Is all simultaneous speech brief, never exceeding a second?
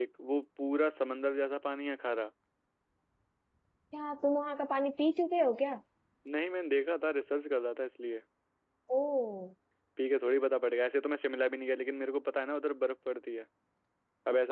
Yes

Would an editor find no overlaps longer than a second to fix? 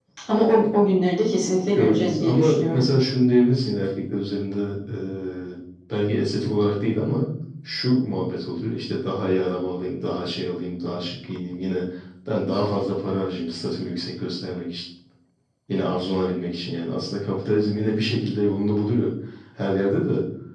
No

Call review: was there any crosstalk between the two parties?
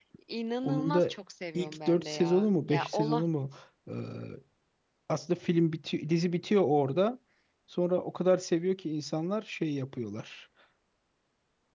Yes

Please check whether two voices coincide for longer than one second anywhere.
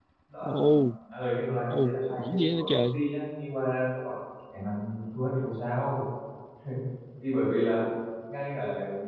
Yes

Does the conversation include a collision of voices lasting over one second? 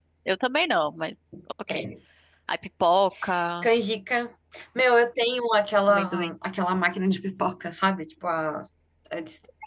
No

